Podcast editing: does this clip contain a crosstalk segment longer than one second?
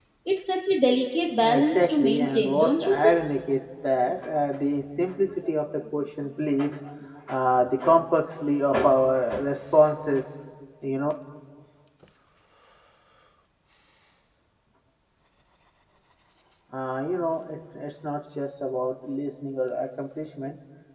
Yes, from 1.4 s

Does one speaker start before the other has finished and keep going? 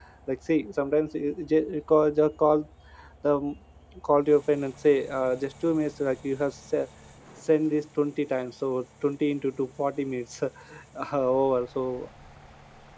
No

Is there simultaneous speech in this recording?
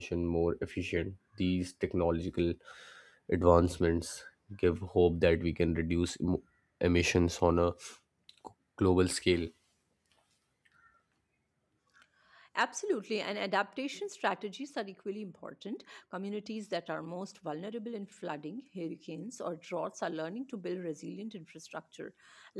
No

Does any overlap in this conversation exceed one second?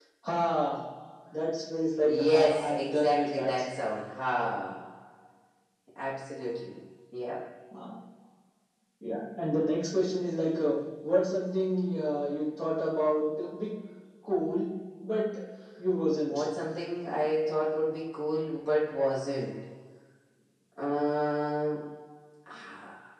Yes, from 2.1 s

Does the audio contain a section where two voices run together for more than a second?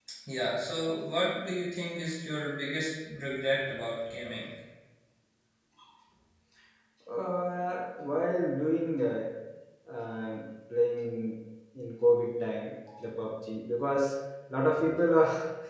No

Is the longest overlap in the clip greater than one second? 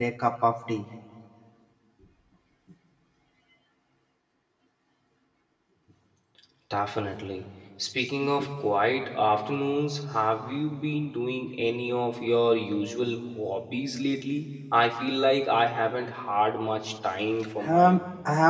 No

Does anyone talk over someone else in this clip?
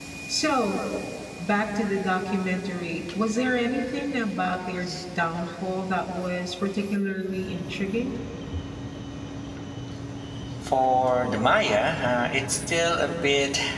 No

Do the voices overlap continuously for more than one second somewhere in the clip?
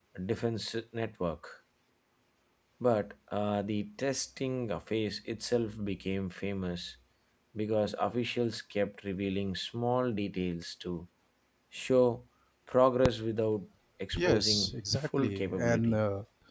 Yes, from 14.1 s

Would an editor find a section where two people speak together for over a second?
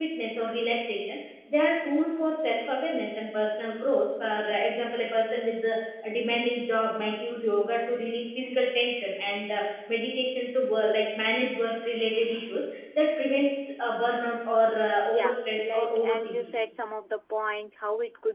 Yes, from 15.1 s

